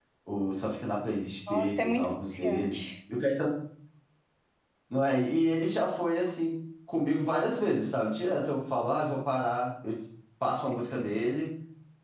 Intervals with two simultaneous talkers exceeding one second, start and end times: 1.5-2.8

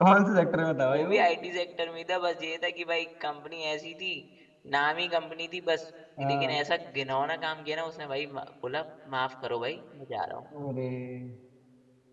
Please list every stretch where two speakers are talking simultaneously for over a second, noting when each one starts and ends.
none

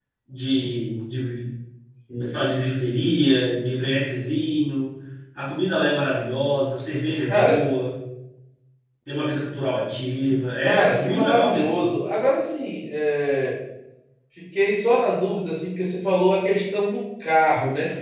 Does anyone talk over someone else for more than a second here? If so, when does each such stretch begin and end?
10.6-11.8

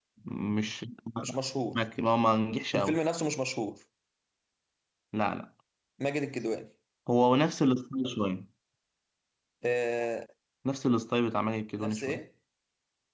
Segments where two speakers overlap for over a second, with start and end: none

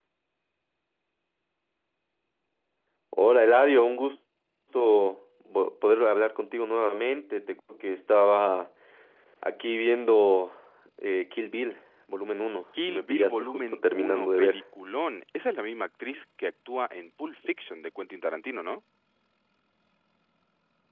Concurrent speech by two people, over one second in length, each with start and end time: 12.9-14.6

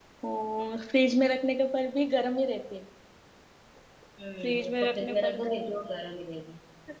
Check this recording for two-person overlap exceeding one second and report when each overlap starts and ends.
4.4-6.0

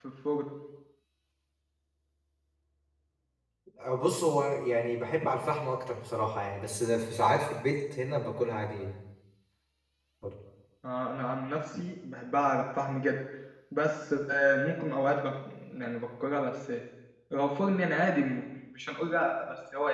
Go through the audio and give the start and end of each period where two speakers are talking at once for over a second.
none

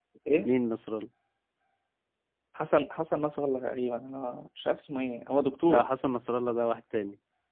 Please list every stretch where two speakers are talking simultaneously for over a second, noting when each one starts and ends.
none

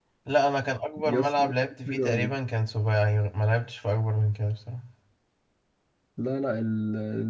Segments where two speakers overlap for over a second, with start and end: none

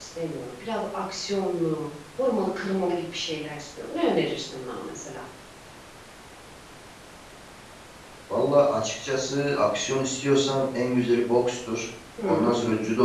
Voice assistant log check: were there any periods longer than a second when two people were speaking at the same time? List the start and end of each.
none

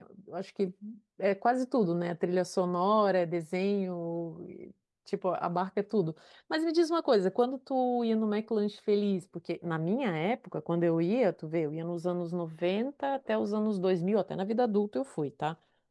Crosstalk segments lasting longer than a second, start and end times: none

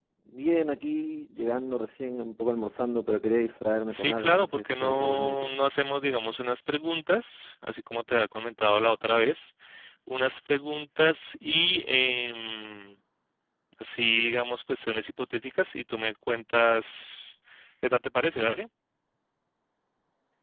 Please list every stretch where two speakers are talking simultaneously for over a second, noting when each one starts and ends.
3.9-5.5

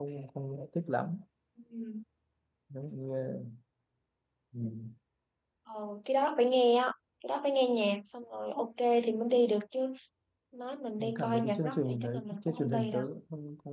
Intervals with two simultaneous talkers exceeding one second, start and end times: 11.0-13.0

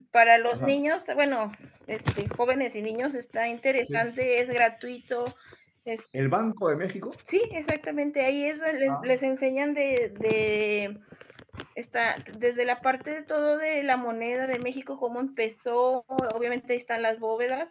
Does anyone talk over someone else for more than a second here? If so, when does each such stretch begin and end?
none

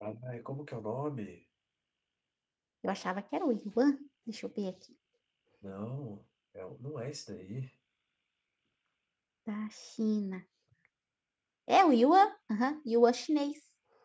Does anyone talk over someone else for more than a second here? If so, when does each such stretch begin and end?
none

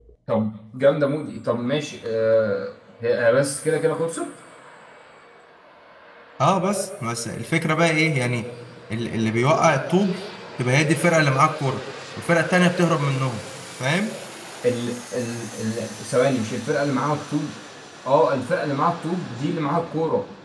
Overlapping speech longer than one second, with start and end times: none

